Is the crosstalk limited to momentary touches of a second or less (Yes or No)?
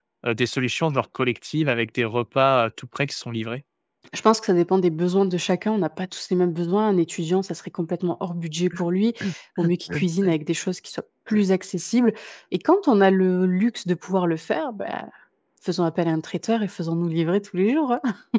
Yes